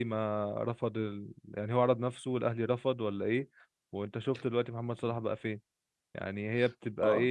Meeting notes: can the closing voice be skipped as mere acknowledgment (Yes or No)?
No